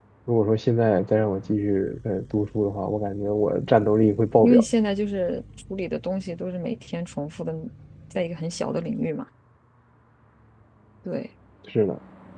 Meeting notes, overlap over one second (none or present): none